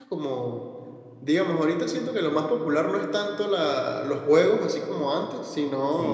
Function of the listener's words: listening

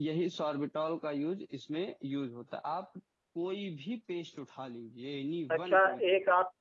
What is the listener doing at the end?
taking over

